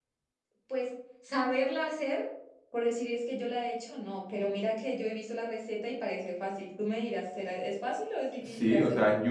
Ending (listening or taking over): taking over